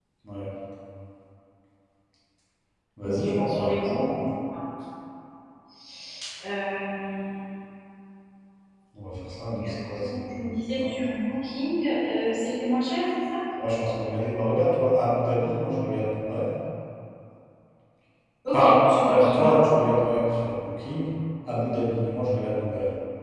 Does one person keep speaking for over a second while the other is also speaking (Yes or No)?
Yes